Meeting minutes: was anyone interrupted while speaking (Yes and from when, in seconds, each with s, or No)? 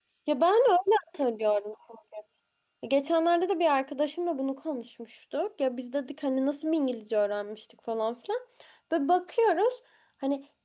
No